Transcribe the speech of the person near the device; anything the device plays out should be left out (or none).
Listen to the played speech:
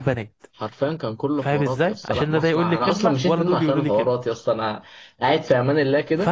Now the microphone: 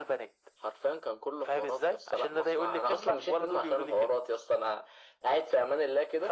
none